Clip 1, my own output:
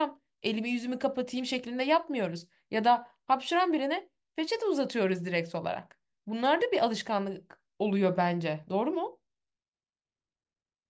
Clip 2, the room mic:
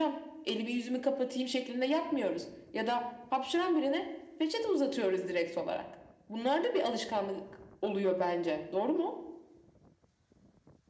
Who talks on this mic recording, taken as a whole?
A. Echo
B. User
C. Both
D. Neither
A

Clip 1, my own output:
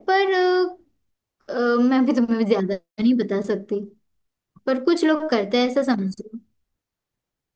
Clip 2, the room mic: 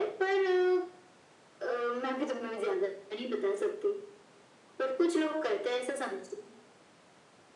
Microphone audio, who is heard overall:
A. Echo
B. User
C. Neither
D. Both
A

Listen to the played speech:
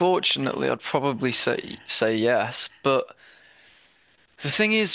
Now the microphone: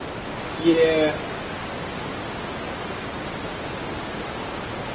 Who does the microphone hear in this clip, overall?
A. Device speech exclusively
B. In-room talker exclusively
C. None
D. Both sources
B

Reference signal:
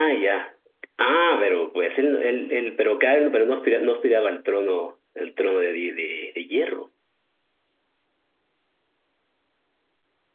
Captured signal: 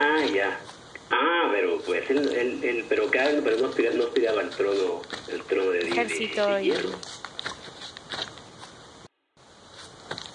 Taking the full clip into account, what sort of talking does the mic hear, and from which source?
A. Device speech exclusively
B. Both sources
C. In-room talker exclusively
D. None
B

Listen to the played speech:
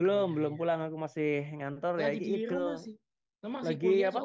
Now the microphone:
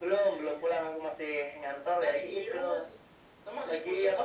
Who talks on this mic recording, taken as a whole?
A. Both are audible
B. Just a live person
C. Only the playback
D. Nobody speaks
C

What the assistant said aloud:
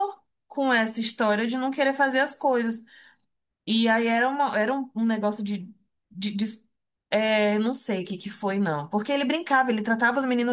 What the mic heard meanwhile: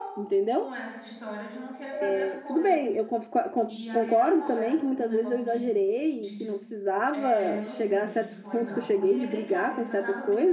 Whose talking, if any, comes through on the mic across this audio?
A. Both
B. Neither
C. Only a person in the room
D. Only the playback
A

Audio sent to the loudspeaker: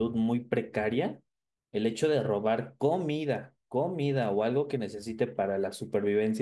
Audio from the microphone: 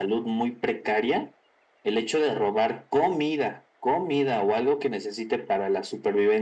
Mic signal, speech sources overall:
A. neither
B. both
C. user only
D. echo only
D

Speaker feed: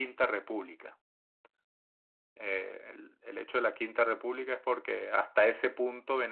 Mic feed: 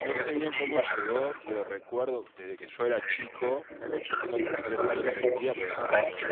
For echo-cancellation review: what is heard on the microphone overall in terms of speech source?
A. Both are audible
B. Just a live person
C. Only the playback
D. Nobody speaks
A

